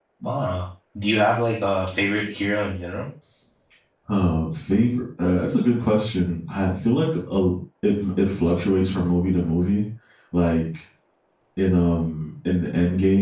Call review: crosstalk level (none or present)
none